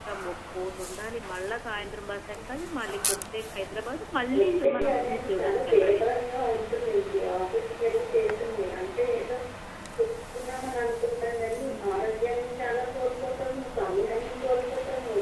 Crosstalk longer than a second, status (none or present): present